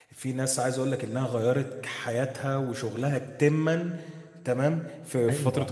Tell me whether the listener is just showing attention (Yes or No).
Yes